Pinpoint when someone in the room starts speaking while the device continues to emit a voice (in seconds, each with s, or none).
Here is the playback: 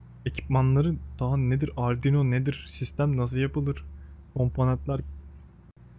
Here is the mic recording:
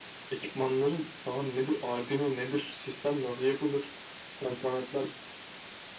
none